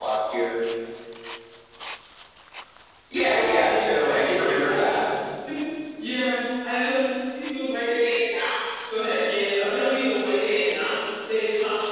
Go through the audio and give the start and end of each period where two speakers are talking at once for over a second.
3.2-5.1

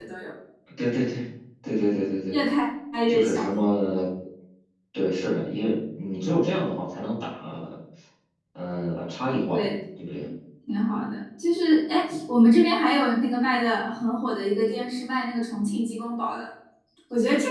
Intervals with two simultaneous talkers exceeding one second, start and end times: none

